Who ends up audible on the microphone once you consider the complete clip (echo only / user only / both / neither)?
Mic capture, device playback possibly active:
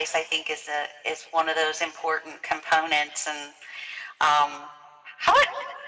echo only